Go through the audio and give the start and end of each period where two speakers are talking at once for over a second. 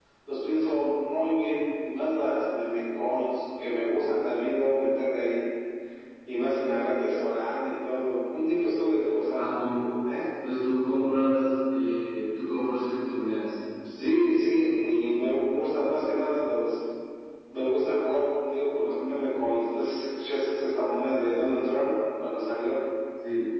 none

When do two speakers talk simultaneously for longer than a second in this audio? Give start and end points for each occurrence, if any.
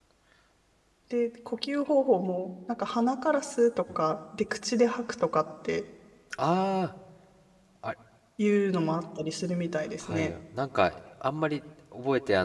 none

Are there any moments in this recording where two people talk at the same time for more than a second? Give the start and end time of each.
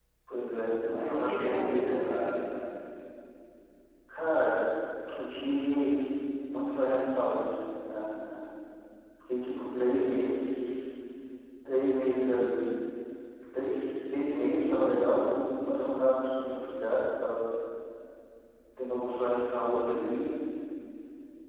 1.0-2.2

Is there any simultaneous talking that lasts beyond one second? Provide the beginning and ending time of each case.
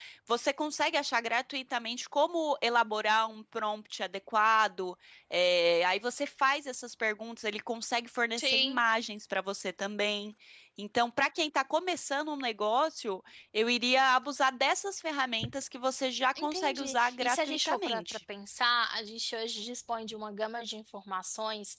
16.4-18.0

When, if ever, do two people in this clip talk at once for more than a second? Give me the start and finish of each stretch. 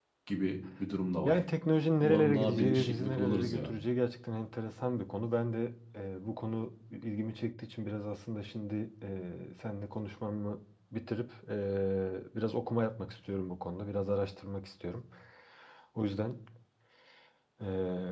2.0-3.7

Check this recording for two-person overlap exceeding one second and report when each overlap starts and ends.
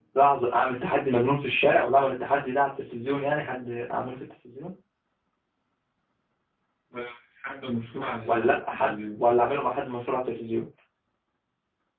8.0-9.2

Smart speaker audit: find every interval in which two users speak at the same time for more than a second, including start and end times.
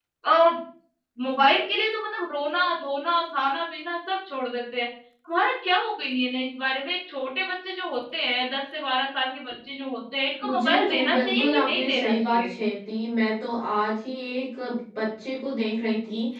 10.4-12.5

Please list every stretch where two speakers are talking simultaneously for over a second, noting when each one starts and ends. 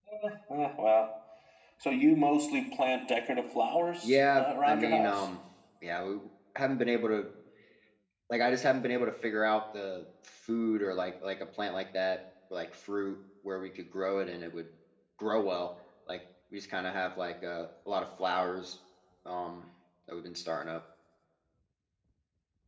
4.0-5.3

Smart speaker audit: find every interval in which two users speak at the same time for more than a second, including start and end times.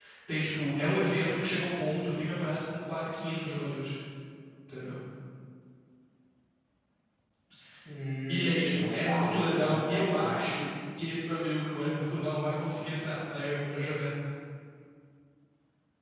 8.3-10.5

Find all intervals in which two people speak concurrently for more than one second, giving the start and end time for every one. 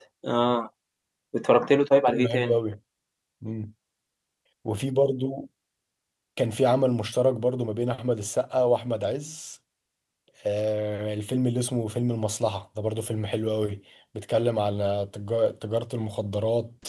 none

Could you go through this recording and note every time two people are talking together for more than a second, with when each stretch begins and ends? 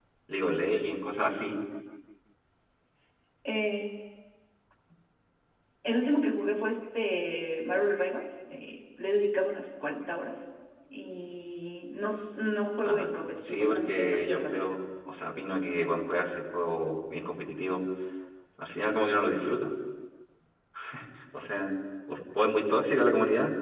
12.8-14.7

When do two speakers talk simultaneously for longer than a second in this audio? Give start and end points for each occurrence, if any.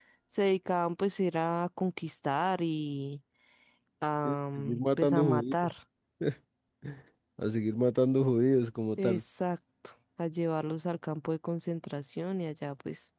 4.2-5.5

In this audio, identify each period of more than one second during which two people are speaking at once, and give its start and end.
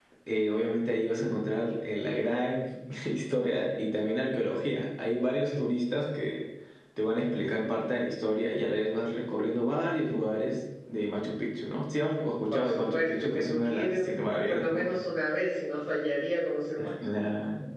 12.5-14.9

